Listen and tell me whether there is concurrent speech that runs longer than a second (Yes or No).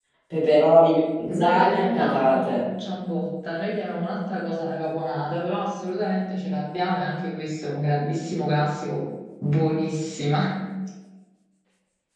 Yes